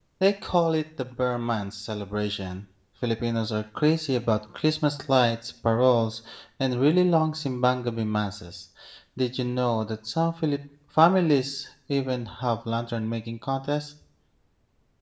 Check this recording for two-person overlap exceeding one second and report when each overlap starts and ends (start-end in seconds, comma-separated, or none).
none